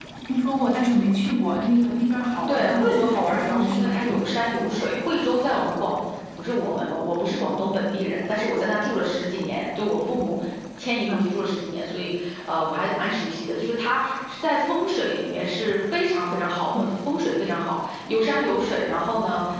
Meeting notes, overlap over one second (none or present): present